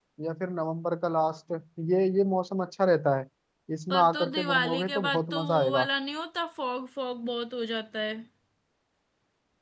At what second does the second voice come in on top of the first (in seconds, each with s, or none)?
3.9 s